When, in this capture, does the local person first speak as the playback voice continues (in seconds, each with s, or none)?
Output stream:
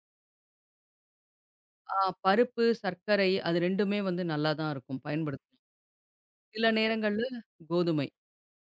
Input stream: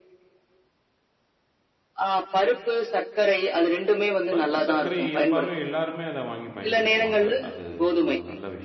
4.3 s